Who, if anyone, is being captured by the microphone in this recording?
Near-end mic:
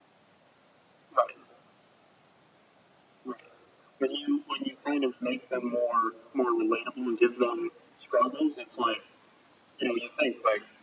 echo only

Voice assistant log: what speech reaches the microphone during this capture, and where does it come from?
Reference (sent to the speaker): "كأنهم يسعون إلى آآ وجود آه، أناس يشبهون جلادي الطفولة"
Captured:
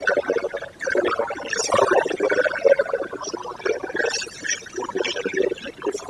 echo only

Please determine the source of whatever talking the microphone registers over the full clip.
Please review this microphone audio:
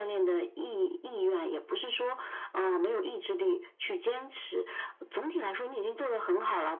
echo only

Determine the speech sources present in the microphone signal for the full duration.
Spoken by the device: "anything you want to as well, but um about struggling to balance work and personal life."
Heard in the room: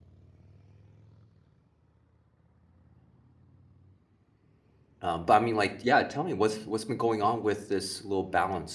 user only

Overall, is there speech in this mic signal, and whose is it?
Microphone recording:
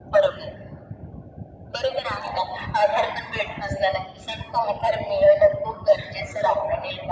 echo only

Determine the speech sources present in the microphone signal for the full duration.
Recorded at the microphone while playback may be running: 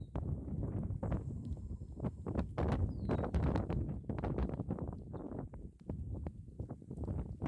neither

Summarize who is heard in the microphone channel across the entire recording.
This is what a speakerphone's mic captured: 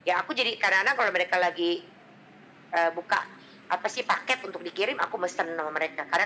echo only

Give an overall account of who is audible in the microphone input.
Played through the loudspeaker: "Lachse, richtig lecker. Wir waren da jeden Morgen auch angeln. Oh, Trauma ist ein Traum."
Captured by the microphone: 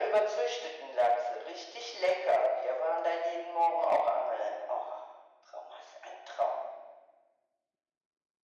echo only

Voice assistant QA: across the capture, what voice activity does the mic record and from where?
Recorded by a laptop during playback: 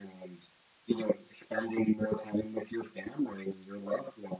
echo only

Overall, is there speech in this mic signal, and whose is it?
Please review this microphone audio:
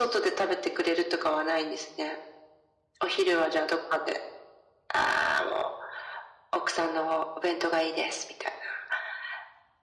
echo only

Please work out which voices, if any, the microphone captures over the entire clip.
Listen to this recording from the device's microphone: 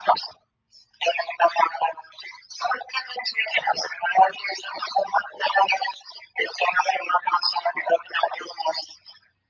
echo only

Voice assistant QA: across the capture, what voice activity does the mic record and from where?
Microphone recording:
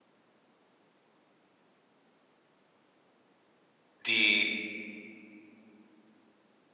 user only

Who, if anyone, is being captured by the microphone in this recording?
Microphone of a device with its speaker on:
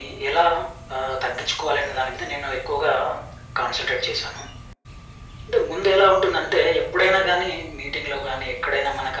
echo only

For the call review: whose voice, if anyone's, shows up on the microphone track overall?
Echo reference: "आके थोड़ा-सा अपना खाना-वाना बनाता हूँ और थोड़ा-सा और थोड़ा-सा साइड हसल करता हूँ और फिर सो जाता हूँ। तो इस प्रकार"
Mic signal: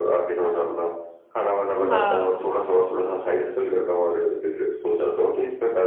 both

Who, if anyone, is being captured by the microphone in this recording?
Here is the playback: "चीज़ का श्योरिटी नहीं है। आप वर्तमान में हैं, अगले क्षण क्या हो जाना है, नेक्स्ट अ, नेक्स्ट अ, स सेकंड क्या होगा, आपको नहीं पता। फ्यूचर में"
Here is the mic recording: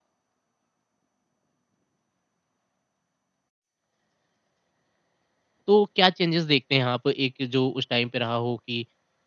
user only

